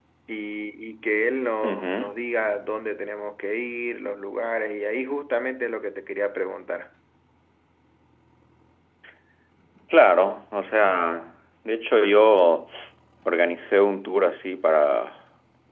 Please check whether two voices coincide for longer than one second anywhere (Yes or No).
No